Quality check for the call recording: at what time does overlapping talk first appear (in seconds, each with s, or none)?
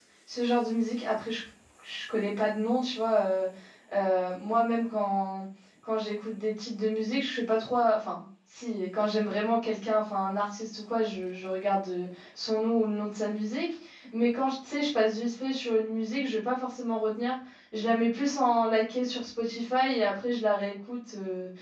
none